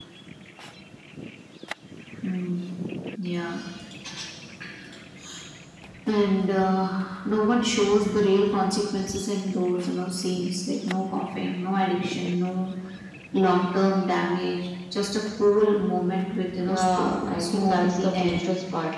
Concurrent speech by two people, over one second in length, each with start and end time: 16.6-18.4

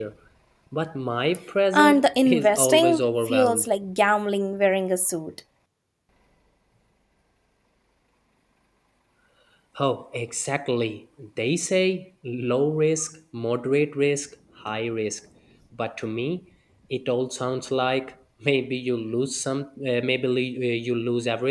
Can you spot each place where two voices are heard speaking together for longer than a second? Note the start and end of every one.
1.7-3.7

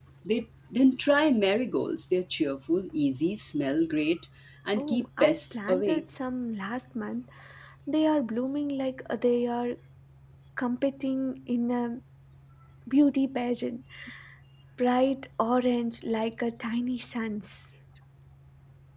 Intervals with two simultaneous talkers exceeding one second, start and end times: 4.8-6.0

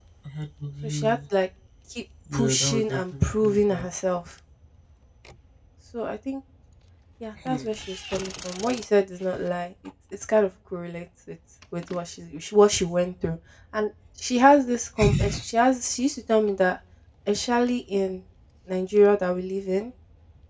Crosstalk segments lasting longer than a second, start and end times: 2.3-3.9

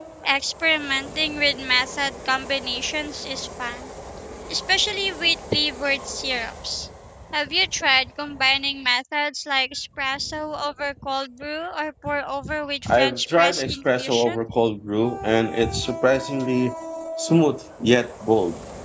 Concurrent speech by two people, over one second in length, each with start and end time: 12.9-14.4

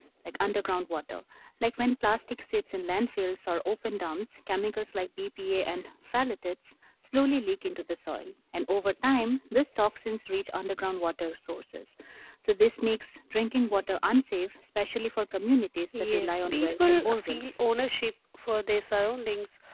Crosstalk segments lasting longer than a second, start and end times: 16.1-17.4

